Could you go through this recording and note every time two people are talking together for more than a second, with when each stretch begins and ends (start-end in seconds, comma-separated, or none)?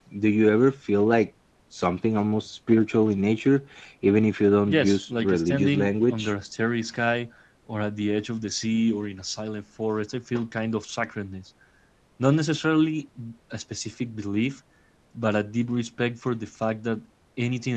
4.7-6.3